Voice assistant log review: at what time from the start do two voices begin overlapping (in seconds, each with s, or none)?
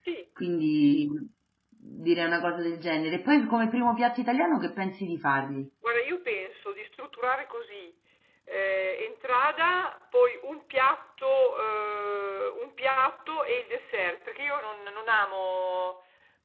none